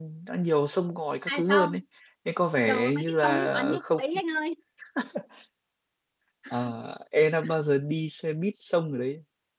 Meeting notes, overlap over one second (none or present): present